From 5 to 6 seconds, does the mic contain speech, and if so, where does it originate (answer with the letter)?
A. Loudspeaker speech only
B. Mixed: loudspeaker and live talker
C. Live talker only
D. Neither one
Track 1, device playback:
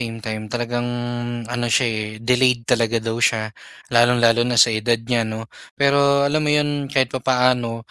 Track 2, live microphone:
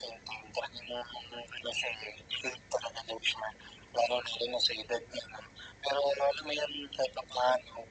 A